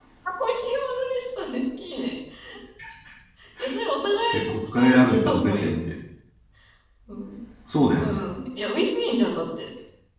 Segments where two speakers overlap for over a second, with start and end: 4.3-5.7

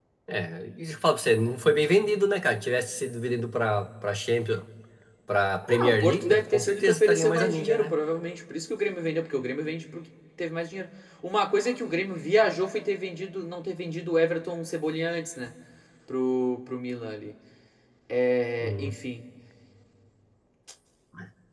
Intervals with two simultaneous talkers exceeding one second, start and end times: 5.7-7.9

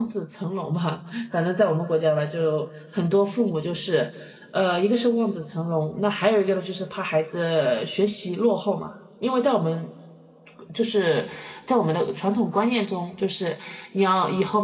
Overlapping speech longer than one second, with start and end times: none

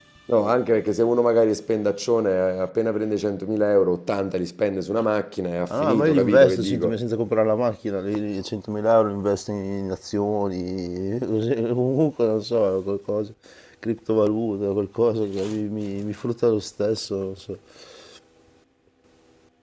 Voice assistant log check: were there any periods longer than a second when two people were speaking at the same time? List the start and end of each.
5.7-7.0

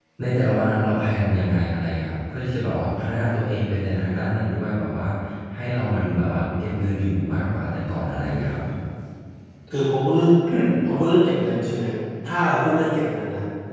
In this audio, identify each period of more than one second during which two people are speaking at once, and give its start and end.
none

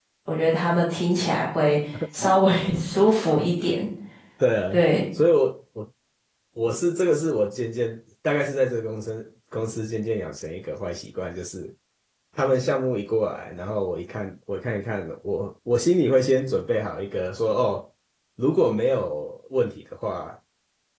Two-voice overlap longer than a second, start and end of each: none

